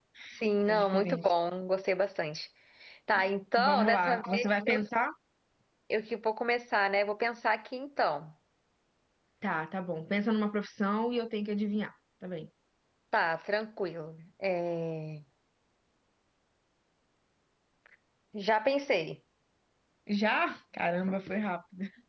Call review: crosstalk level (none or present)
present